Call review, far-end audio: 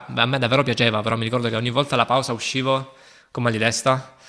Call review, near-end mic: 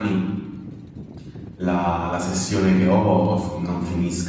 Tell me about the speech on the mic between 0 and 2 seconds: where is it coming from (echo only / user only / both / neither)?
user only